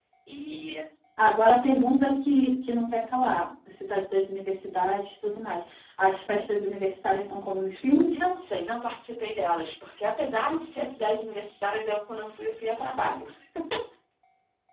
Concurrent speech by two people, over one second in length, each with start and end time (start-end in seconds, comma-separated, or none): none